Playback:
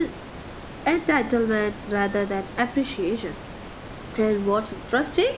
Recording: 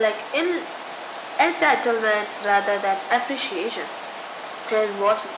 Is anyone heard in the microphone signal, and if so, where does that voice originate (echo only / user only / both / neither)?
echo only